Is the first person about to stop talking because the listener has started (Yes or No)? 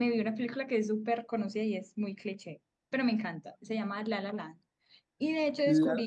No